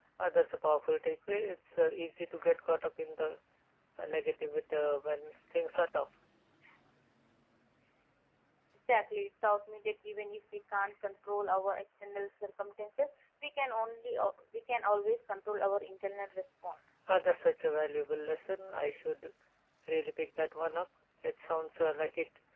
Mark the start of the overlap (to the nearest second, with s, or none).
none